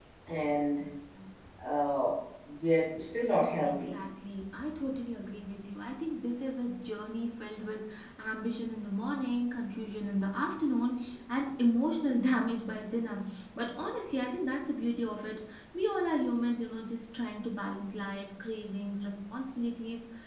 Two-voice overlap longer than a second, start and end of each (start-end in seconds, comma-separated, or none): none